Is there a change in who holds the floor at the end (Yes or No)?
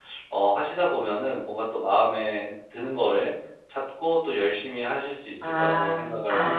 Yes